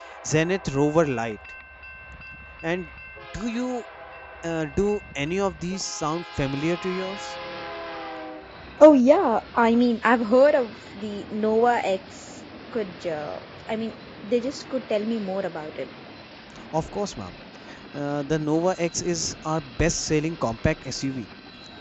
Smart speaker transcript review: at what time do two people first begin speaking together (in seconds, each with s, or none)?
none